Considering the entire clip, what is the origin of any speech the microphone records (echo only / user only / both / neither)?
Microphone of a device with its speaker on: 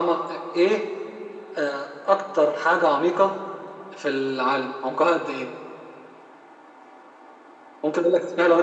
echo only